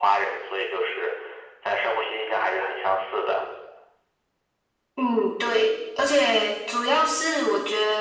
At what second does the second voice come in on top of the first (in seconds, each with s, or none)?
none